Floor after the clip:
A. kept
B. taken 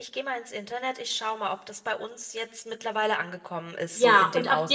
B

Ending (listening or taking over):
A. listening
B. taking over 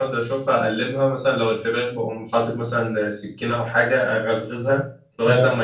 A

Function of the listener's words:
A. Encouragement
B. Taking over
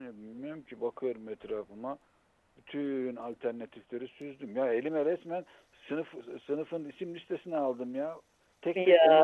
A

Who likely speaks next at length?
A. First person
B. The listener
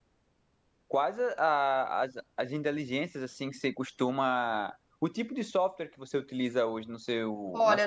B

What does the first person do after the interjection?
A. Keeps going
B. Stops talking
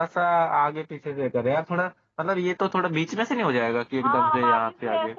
B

